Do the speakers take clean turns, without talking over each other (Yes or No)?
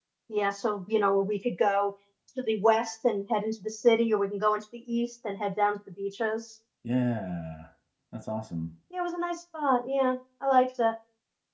Yes